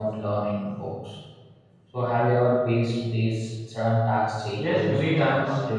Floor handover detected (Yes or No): Yes